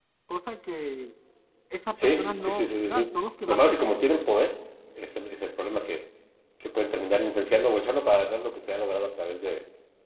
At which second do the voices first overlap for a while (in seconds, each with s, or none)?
2.0 s